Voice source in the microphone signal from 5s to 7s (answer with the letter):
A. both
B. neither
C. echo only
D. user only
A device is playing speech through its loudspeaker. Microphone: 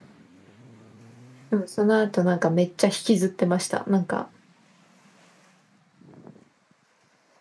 B